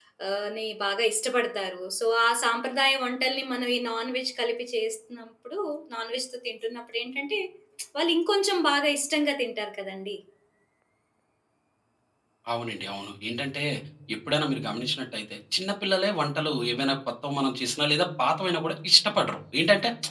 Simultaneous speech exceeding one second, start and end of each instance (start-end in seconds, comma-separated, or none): none